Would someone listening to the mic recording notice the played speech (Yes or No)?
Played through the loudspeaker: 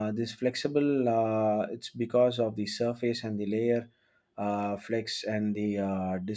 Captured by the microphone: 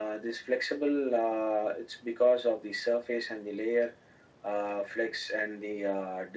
Yes